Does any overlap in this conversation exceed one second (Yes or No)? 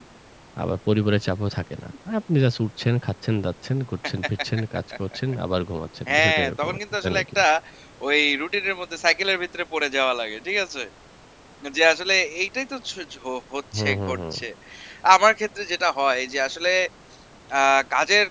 Yes